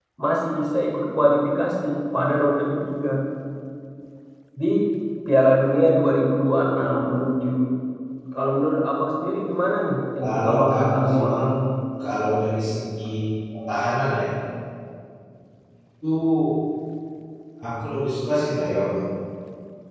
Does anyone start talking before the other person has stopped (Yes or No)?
Yes